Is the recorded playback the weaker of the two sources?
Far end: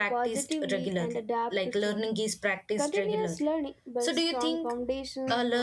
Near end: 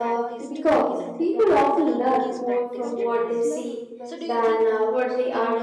Yes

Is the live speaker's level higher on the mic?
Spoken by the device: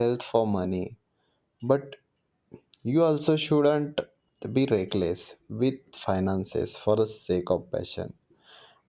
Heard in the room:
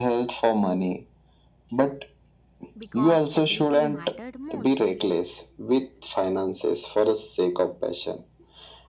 No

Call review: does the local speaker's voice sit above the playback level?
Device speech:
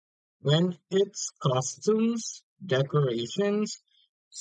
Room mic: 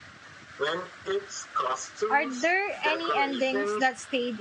Yes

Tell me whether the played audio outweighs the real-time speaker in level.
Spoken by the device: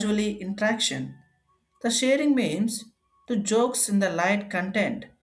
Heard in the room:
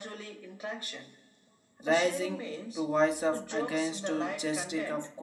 No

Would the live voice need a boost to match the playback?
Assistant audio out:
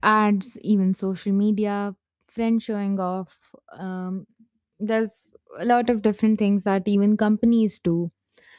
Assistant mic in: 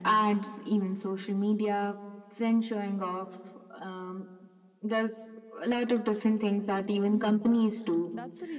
Yes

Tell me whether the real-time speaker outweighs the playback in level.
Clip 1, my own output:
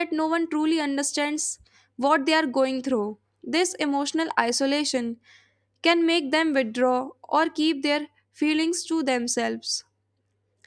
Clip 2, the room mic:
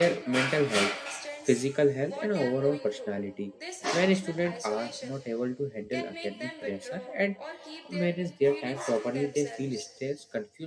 Yes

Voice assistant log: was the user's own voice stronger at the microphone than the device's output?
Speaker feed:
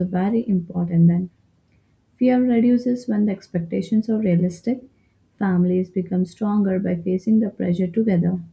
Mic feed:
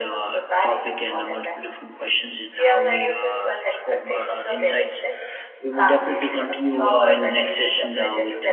Yes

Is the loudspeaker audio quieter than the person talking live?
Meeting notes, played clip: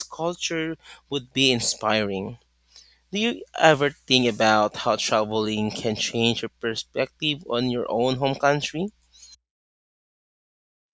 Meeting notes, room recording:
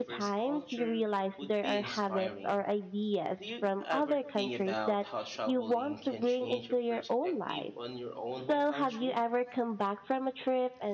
Yes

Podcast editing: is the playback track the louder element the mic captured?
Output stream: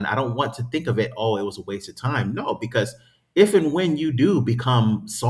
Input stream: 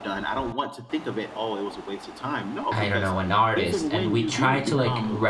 No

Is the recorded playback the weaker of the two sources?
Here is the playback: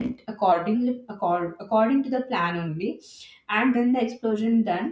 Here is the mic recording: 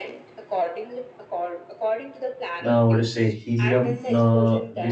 Yes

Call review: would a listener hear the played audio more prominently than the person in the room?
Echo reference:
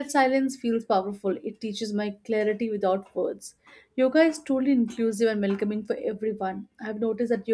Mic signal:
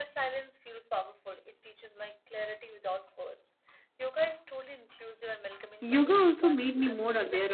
No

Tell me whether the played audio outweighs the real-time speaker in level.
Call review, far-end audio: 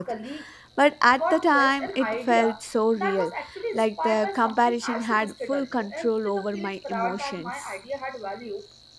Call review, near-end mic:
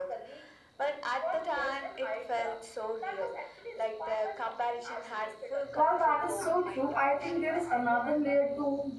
No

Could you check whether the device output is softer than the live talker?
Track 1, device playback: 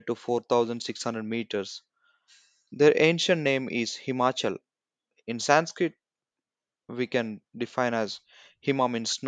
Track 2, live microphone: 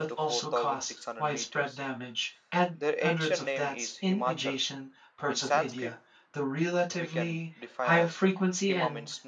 Yes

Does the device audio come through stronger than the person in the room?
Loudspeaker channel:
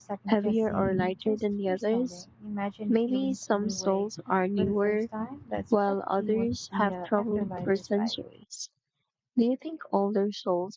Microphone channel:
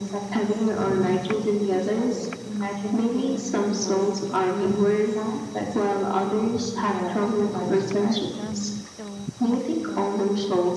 Yes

